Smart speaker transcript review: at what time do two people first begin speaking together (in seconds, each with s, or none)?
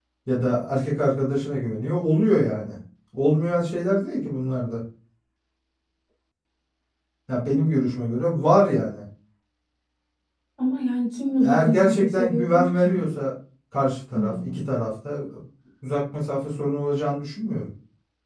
11.4 s